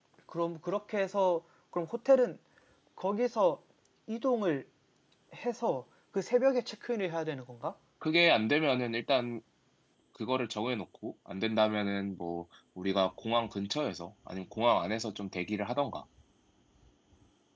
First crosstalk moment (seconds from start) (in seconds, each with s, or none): none